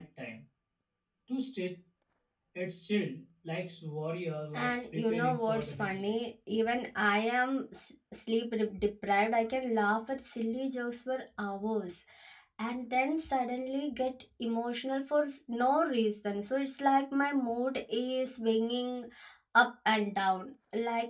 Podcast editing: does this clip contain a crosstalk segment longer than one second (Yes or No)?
Yes